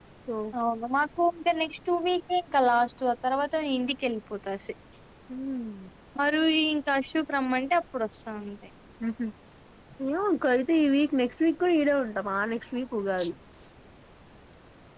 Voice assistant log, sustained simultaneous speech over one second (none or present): none